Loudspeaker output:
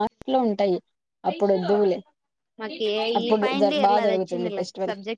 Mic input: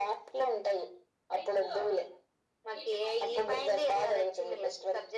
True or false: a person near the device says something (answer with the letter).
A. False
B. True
A